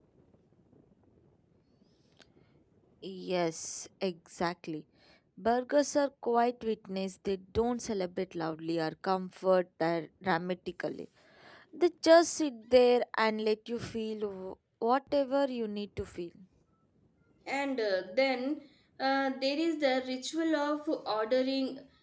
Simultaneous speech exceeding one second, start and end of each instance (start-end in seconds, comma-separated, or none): none